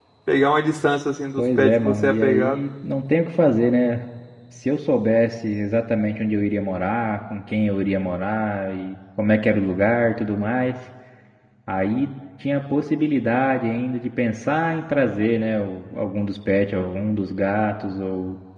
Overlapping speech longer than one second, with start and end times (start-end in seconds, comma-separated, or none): 1.4-2.6